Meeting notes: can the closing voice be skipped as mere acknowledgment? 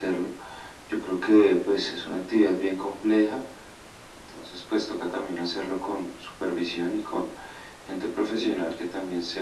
Yes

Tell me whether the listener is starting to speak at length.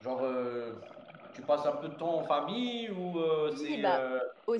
Yes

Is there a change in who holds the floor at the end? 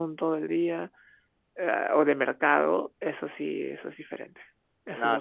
Yes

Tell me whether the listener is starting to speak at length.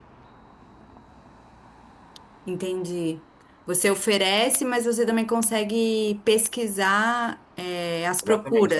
Yes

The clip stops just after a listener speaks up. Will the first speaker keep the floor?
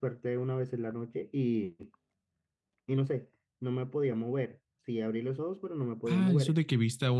No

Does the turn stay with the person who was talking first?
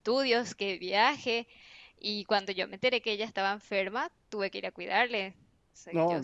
No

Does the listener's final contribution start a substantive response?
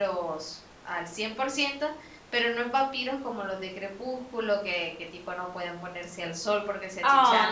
Yes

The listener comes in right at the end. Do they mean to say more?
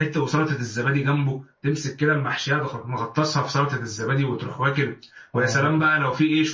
No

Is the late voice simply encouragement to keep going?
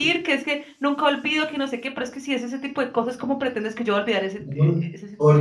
No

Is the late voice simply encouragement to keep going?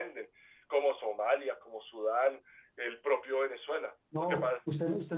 No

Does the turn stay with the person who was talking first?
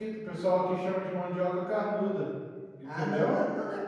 No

